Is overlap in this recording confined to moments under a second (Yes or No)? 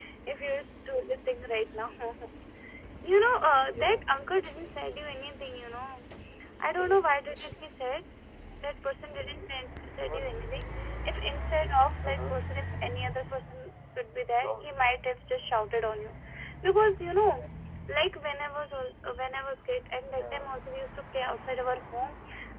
Yes